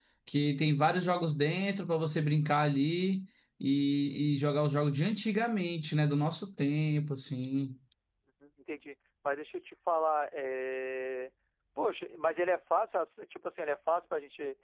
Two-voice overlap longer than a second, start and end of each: none

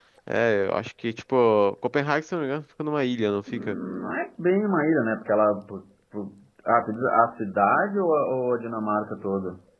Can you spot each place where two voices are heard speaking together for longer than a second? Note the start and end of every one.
none

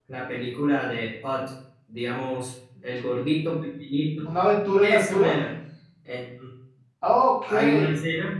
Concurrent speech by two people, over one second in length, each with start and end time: none

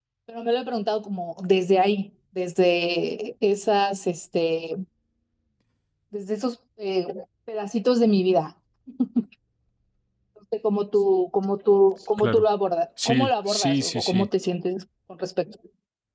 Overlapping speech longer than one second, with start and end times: 13.1-14.3

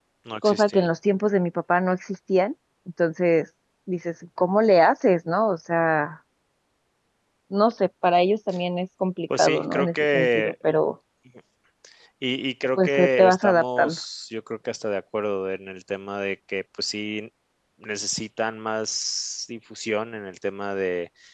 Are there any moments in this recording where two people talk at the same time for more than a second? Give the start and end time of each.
9.3-10.7, 12.8-14.0

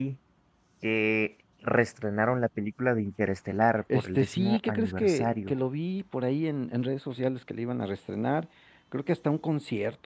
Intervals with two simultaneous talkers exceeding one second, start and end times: 3.9-5.5

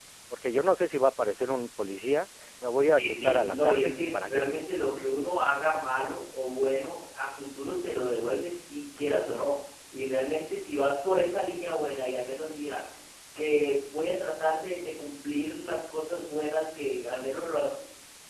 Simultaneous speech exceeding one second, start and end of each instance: 2.9-4.4

